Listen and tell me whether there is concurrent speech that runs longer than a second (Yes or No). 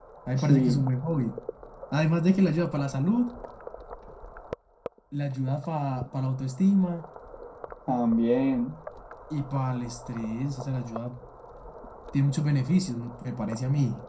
No